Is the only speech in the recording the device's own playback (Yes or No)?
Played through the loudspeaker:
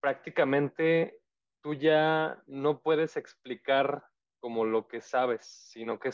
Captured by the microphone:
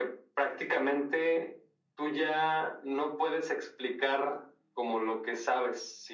Yes